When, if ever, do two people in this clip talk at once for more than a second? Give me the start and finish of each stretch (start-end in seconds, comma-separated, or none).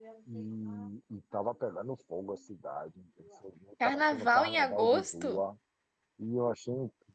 3.8-5.4